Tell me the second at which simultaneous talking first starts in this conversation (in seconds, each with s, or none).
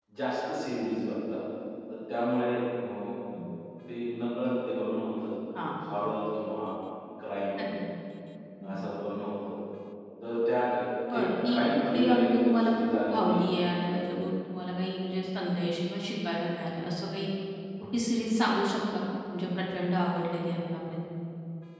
11.2 s